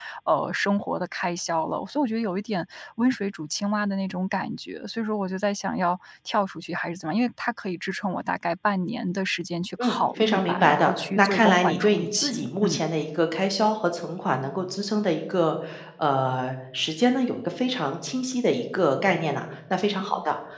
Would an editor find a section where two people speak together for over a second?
Yes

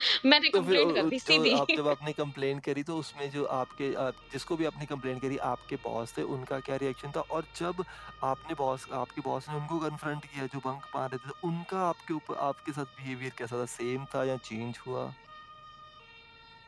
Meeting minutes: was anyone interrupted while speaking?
Yes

